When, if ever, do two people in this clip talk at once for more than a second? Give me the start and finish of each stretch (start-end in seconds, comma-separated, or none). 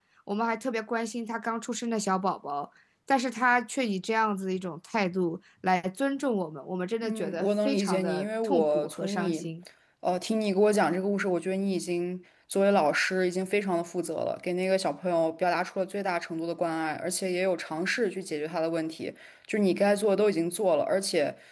7.0-9.4